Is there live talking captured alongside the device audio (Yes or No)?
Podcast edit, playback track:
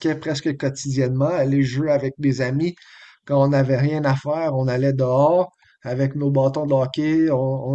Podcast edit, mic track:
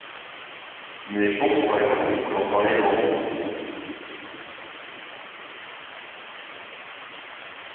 Yes